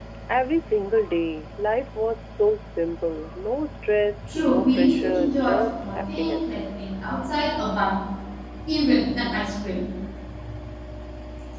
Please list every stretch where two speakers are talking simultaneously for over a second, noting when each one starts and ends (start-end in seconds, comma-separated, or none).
4.2-6.6